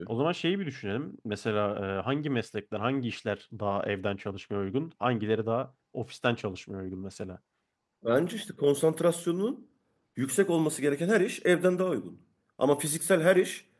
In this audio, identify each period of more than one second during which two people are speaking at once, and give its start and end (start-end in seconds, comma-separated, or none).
none